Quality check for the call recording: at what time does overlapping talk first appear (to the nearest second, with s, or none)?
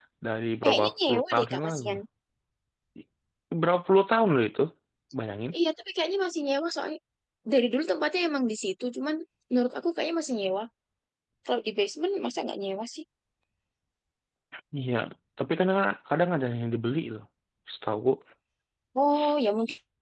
1 s